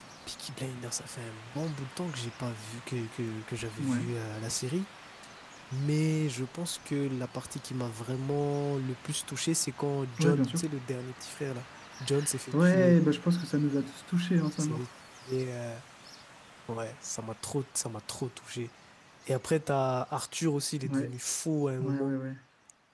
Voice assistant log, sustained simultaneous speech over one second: none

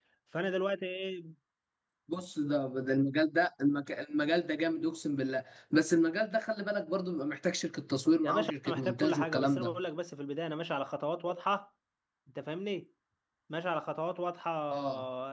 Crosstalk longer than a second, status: present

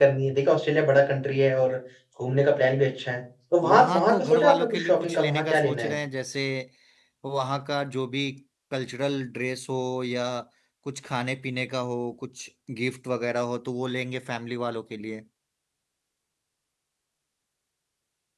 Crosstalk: present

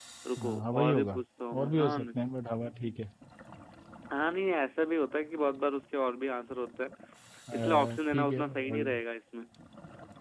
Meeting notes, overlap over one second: present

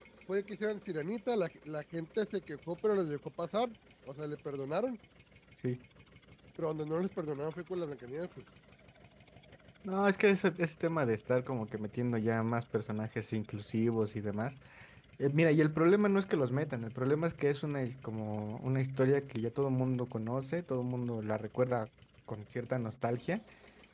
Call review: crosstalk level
none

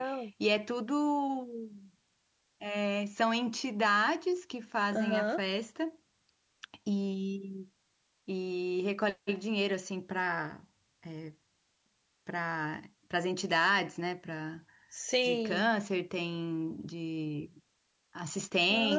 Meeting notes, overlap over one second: none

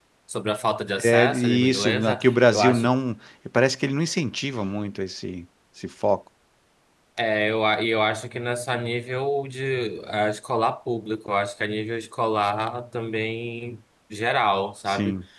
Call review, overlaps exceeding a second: present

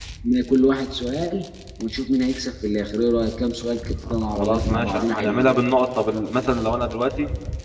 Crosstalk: present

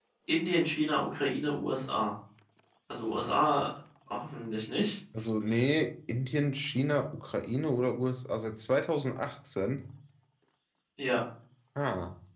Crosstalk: none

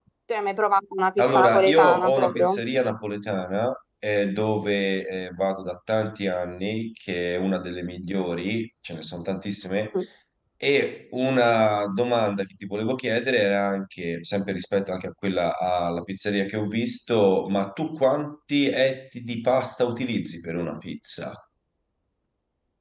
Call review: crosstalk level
present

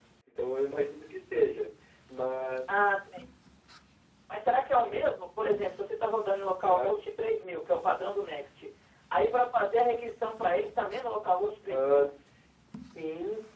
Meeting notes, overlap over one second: none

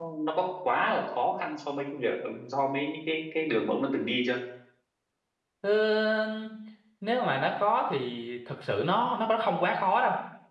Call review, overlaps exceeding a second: none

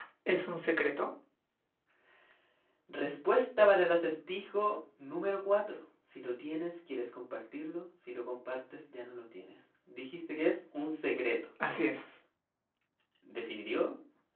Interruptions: none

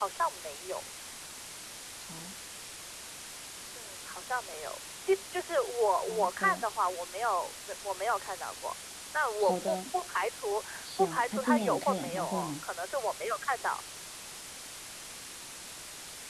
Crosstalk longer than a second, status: present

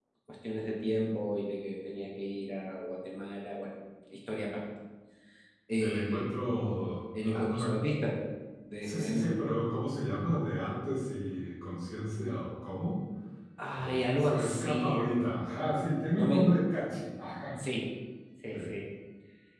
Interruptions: present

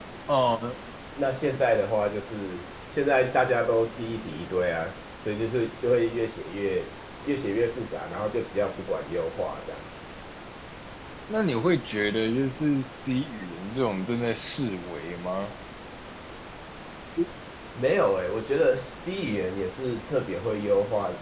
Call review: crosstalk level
none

